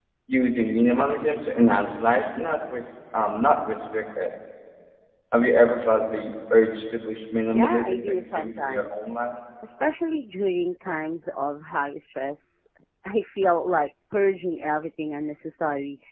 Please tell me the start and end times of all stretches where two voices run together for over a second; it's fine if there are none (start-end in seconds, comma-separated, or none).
7.5-9.1